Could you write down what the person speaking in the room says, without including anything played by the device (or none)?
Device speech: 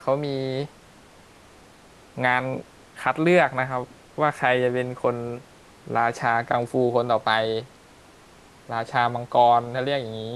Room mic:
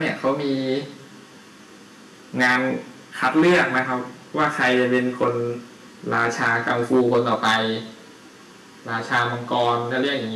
none